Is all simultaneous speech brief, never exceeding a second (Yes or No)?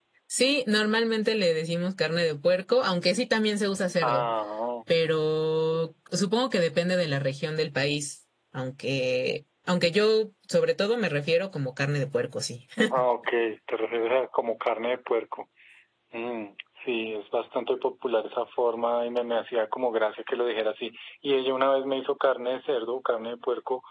Yes